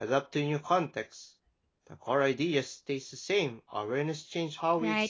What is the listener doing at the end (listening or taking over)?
taking over